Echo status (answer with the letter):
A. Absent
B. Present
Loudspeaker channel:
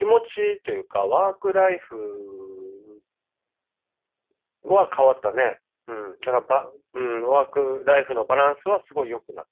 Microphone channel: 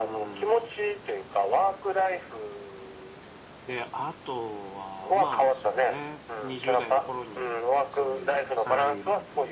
B